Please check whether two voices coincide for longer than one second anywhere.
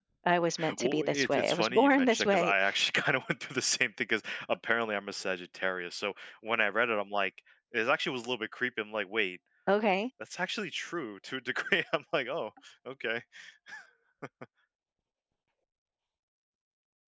Yes, from 0.8 s

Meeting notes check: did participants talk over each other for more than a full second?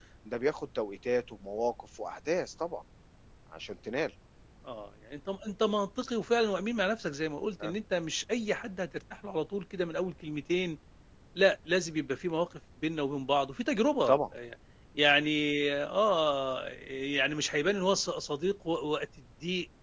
No

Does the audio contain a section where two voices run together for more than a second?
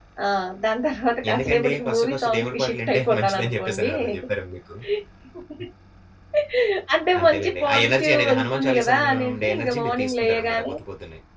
Yes, from 1.3 s

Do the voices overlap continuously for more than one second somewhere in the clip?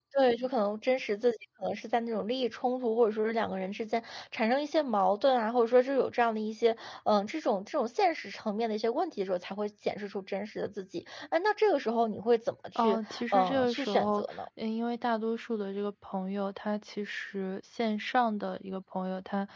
Yes, from 12.8 s

